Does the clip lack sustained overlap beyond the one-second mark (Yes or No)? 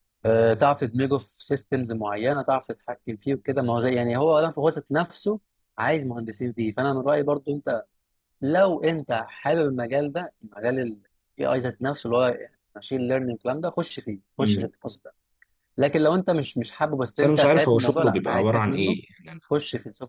No